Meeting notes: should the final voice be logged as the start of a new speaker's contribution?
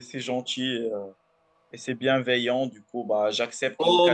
Yes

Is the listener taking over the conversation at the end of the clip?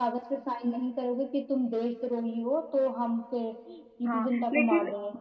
Yes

